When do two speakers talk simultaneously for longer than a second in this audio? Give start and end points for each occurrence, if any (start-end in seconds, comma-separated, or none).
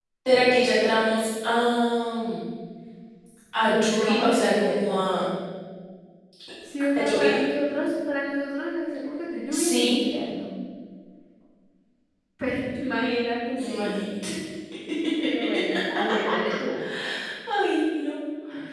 3.6-5.0